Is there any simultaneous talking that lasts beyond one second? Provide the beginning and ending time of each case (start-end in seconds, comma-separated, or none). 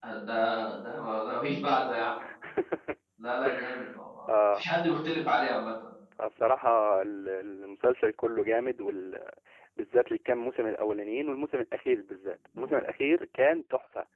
none